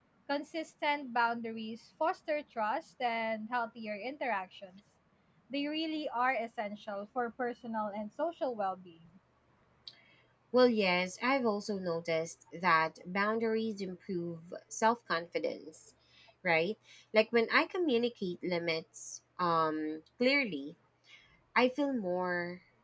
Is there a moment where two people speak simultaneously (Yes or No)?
No